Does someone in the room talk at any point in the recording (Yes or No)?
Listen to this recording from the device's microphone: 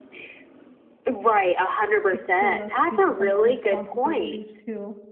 Yes